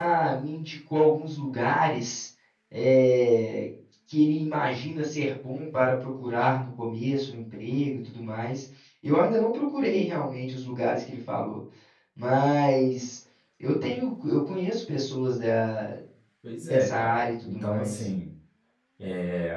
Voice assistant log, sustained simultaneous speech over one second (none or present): present